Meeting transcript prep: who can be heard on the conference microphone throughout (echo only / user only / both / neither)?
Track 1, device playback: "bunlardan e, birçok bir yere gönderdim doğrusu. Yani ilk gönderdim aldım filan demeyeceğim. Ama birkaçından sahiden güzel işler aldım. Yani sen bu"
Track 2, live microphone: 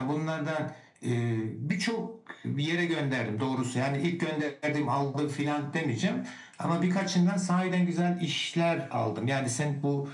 echo only